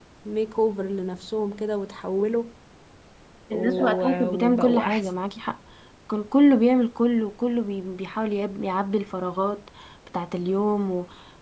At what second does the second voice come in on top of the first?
3.5 s

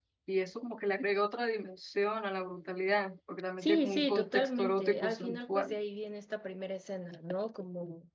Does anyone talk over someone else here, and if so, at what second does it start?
3.6 s

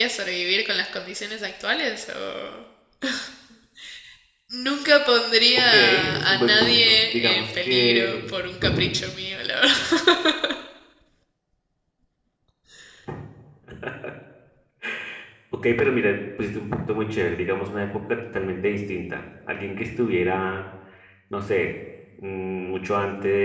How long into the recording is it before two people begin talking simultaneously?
5.5 s

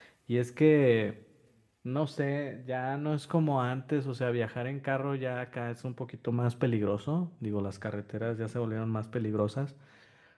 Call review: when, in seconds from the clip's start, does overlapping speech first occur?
none

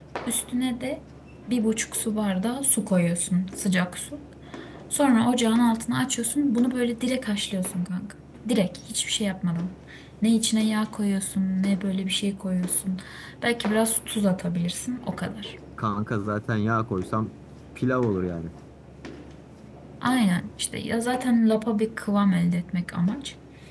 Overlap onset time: none

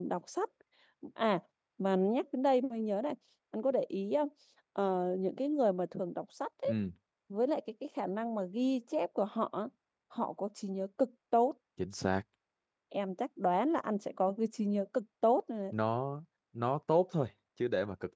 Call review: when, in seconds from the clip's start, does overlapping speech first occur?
none

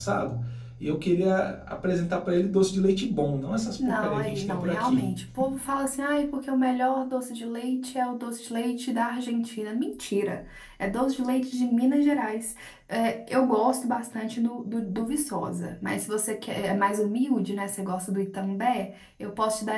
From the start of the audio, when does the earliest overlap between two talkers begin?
3.8 s

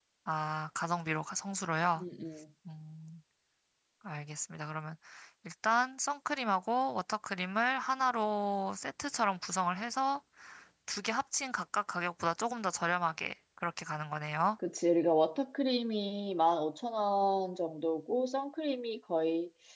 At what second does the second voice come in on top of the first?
none

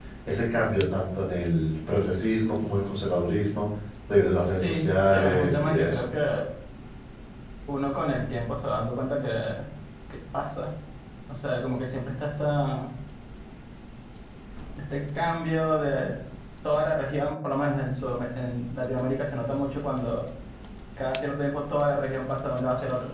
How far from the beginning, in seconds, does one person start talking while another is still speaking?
4.3 s

